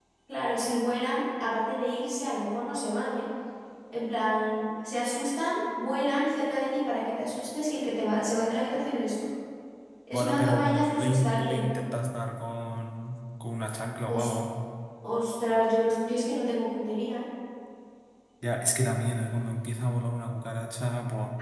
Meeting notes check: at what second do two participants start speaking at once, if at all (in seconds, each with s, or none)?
10.1 s